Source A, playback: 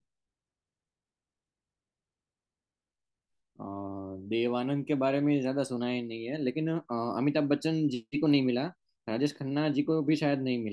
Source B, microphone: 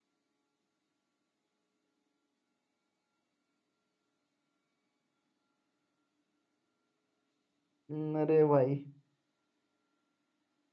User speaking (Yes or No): Yes